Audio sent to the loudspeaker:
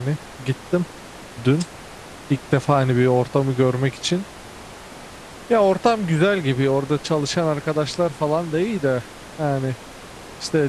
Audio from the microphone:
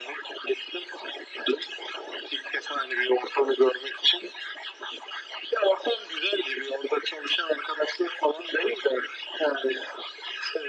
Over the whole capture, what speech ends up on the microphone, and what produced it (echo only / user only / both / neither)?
echo only